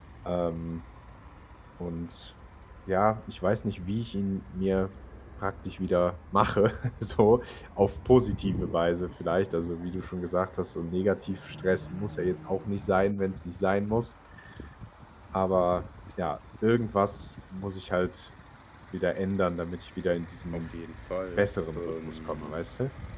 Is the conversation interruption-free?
No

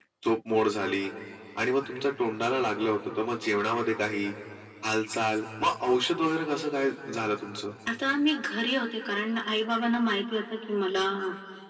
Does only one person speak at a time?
Yes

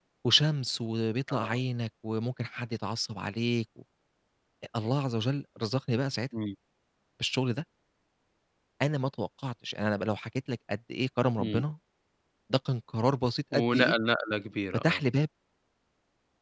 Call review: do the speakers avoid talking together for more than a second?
Yes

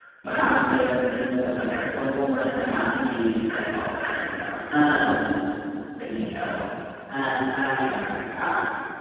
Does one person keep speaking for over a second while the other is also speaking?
No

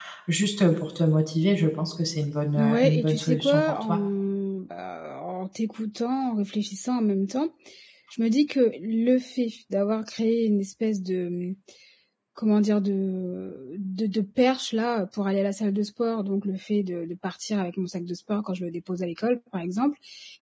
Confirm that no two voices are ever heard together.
No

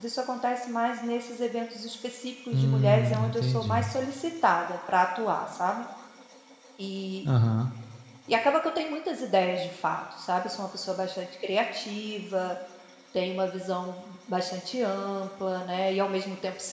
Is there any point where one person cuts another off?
Yes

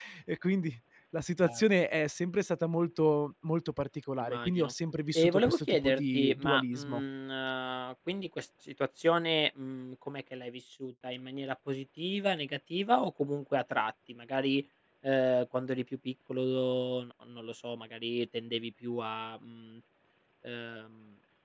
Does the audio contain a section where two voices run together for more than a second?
Yes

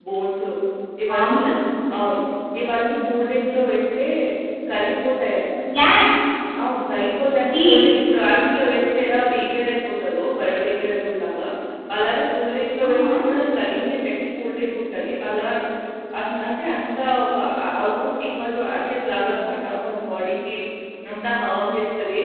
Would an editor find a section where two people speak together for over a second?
No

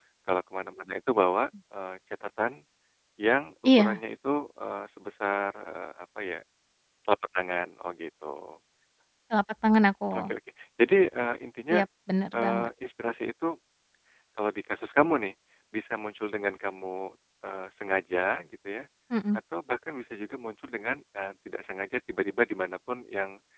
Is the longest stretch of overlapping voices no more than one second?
Yes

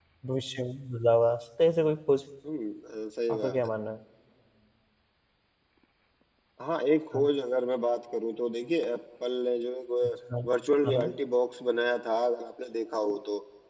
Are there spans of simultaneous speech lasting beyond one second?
No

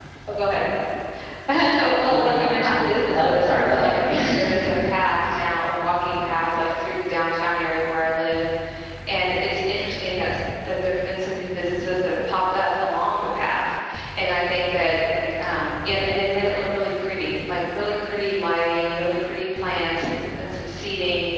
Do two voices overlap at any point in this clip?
Yes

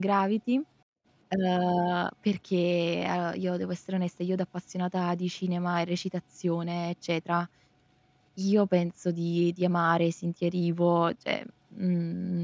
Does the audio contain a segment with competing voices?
No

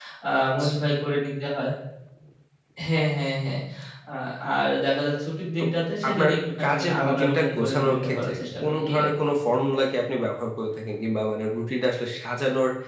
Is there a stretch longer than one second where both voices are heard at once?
Yes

